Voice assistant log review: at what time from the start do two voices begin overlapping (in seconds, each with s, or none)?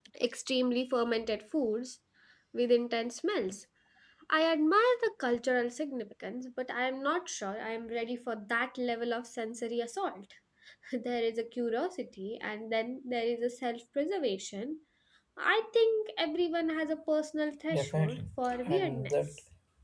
17.7 s